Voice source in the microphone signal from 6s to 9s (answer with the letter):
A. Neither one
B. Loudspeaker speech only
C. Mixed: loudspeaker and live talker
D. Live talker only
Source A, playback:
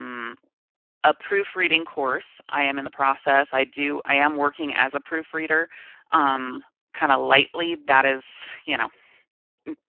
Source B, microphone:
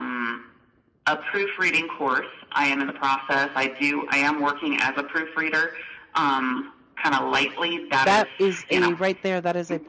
C